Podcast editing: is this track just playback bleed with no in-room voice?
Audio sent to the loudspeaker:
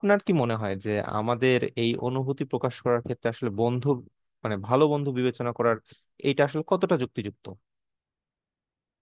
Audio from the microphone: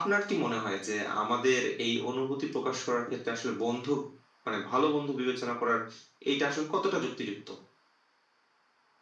Yes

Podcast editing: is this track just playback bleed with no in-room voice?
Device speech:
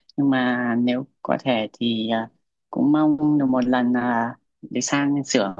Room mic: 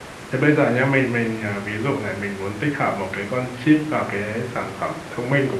No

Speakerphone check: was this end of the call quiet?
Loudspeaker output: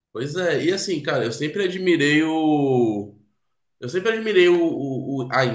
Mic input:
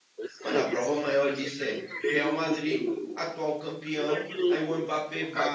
No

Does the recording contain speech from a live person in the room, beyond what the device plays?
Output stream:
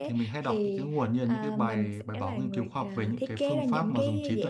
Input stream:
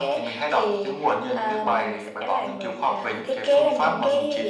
No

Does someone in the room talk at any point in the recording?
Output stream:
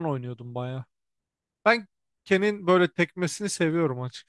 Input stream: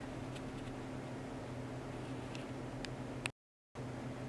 No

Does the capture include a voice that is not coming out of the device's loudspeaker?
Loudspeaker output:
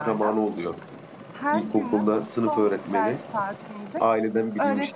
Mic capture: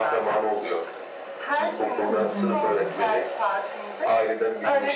Yes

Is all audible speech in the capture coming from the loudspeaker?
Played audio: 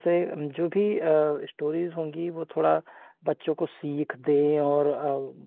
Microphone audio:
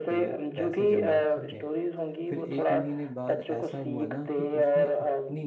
No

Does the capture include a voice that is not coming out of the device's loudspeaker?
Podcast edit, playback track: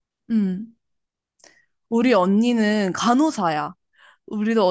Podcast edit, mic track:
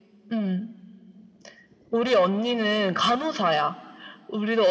No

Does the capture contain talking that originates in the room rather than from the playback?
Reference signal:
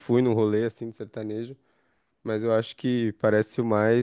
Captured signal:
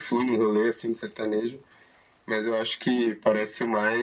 No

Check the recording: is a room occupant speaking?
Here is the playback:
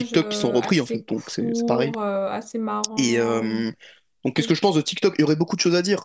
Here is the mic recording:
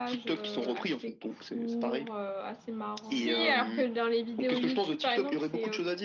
Yes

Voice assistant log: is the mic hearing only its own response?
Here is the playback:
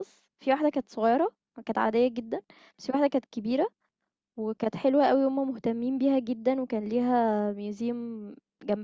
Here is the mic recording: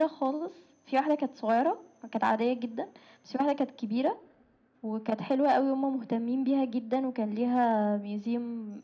Yes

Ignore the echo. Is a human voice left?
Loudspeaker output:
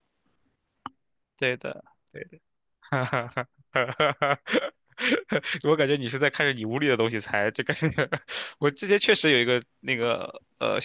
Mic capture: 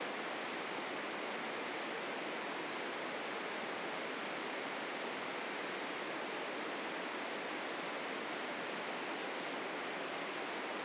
No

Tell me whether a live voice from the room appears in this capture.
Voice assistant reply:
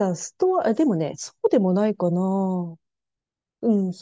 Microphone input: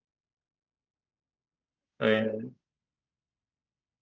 Yes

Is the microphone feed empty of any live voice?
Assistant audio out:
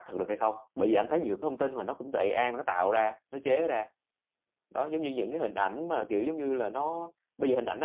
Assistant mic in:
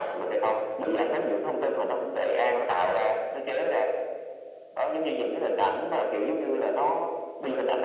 Yes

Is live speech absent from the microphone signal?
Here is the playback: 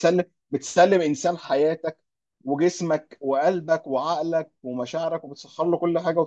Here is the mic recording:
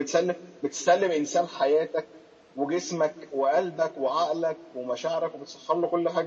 Yes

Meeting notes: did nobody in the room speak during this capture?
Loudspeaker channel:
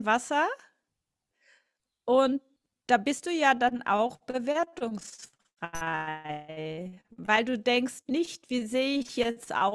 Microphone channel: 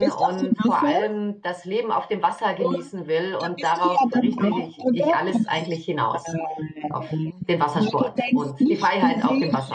No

